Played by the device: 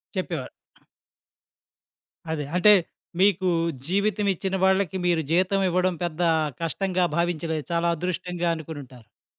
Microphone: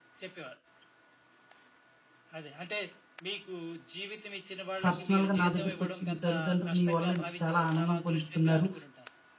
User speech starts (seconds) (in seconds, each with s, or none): 4.8 s